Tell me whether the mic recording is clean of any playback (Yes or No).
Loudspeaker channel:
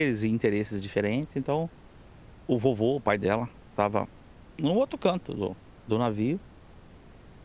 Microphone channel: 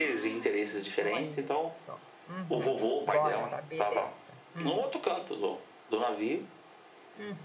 No